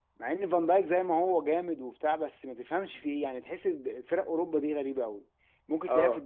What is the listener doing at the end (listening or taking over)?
listening